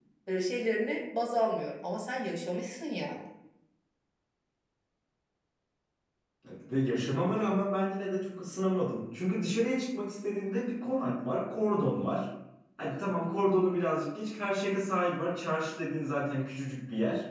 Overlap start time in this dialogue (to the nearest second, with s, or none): none